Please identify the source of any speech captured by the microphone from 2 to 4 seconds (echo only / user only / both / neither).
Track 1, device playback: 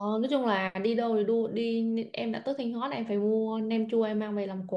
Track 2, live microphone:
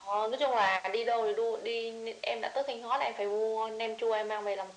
echo only